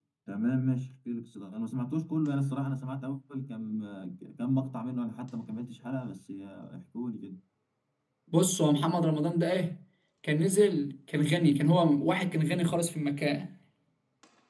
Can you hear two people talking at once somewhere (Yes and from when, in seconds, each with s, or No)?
No